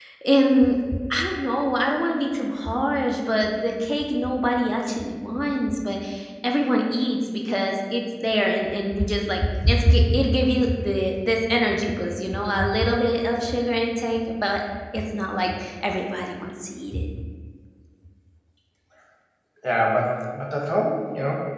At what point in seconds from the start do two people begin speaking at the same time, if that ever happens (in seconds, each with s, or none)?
none